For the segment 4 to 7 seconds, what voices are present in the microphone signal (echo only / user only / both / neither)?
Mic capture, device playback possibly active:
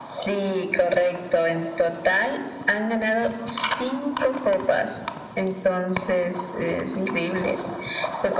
echo only